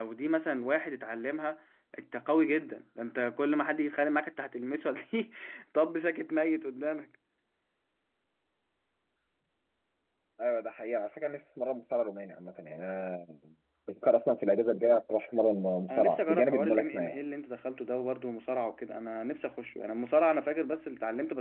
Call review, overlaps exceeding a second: present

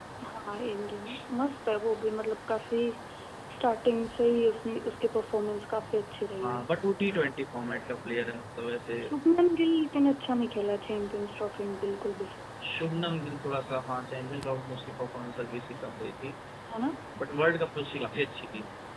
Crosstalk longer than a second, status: none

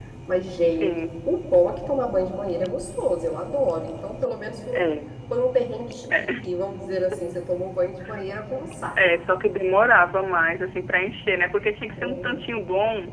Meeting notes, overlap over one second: none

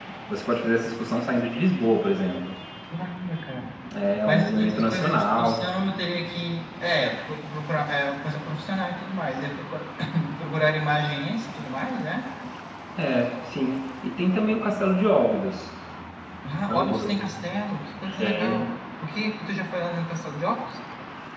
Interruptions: present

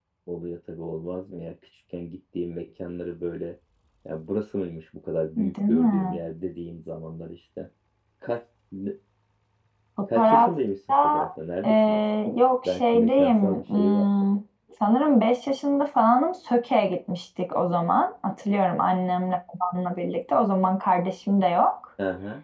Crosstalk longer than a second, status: present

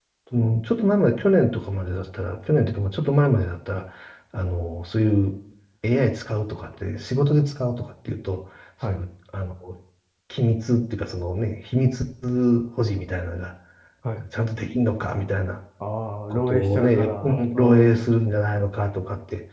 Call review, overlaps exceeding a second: present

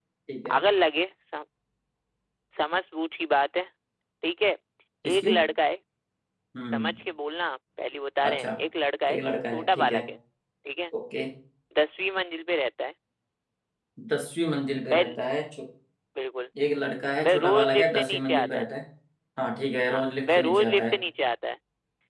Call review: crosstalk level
present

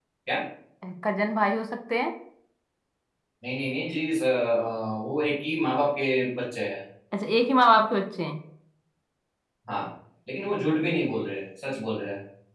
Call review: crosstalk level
none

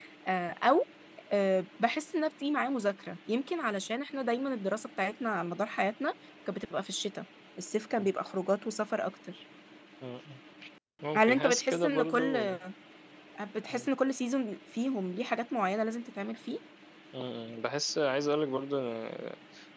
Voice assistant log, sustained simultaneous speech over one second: present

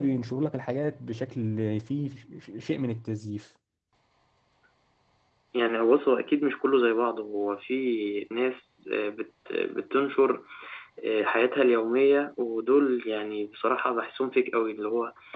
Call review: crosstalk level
none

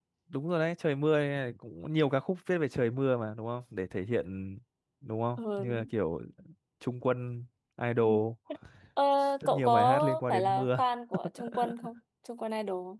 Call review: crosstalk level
present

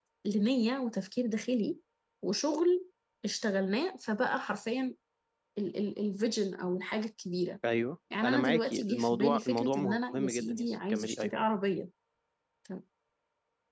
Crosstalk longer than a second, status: present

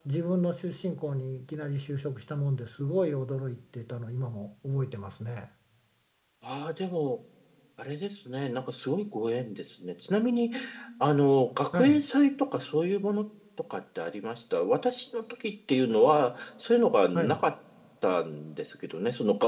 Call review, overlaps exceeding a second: none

